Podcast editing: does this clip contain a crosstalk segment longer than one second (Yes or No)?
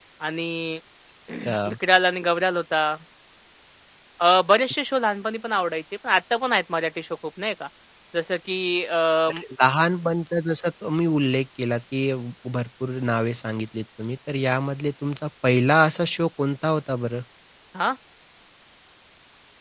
No